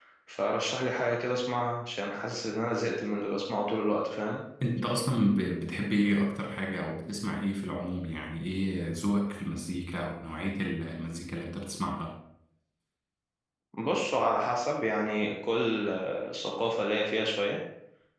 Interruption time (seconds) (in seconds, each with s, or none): none